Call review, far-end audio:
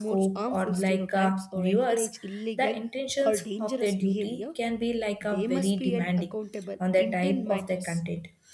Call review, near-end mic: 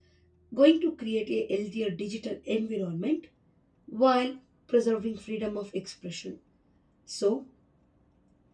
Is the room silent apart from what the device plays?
No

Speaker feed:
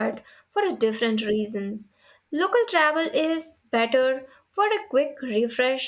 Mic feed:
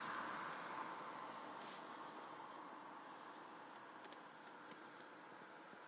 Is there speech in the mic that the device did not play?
No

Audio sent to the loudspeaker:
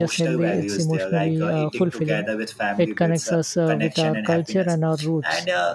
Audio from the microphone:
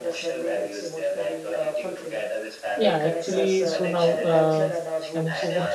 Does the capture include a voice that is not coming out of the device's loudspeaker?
Yes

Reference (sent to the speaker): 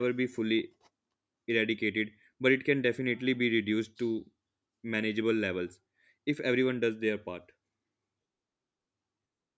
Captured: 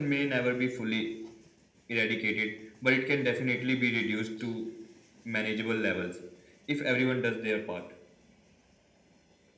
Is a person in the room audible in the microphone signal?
No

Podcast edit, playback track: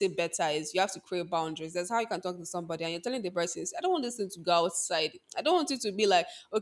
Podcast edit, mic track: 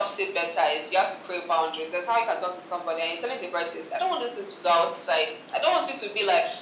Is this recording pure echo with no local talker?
Yes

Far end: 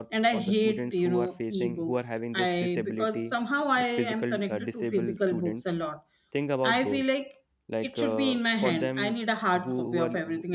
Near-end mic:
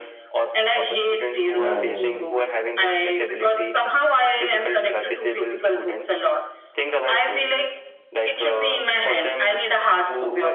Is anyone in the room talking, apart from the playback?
Yes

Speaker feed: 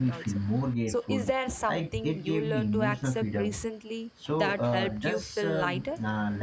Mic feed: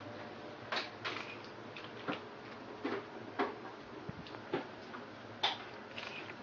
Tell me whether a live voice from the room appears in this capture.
No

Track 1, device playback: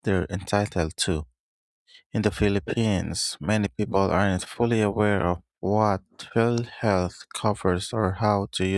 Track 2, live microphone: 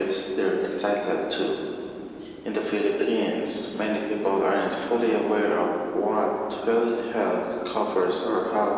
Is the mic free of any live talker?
Yes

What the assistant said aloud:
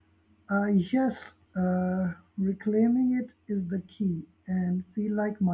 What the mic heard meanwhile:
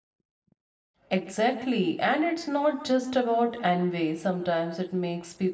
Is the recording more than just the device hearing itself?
Yes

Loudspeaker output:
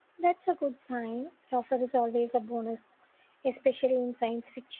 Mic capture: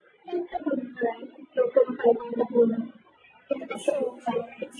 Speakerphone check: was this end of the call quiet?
No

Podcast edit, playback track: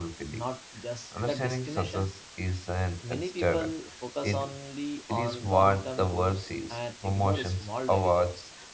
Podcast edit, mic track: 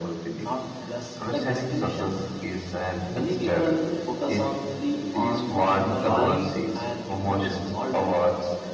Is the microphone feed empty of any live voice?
No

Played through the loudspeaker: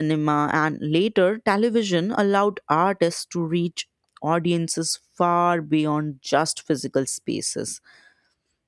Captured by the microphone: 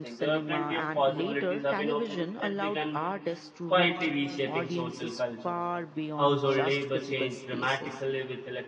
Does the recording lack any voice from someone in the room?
No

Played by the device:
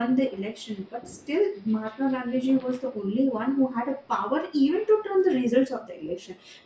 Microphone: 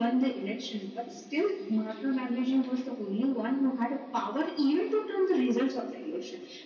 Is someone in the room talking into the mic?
No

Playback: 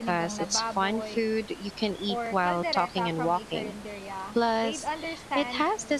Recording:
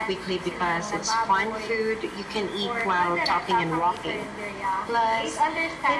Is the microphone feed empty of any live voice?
Yes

